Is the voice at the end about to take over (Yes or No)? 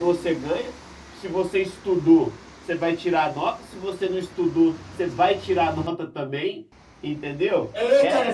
Yes